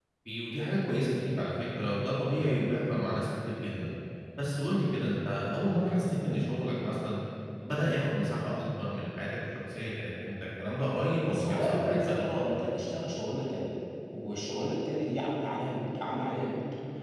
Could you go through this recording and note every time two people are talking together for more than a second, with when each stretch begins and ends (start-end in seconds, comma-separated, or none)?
11.3-12.7